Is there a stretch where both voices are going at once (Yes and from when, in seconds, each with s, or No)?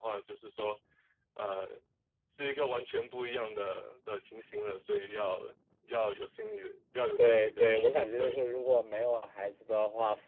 Yes, from 7.2 s